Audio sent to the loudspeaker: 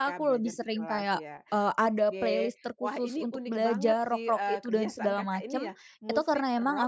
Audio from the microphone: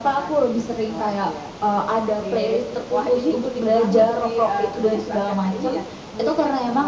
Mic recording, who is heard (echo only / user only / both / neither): echo only